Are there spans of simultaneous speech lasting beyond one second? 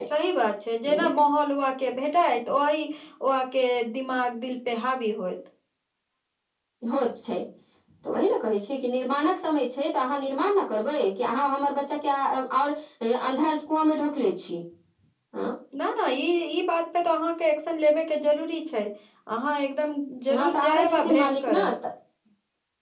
Yes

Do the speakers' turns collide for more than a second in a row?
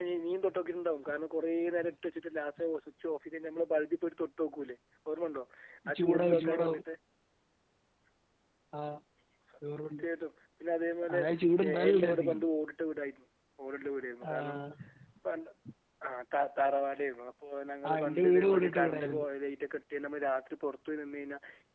Yes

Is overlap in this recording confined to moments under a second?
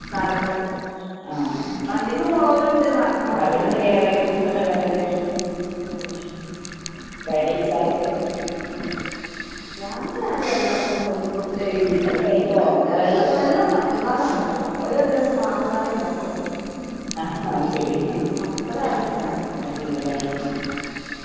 No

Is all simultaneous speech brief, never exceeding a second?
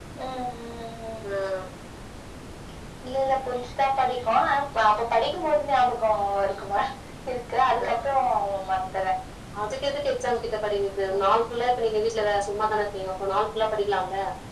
Yes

